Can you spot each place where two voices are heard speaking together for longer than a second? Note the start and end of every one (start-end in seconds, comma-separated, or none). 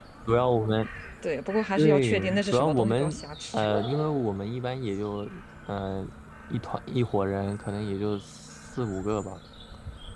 1.8-3.1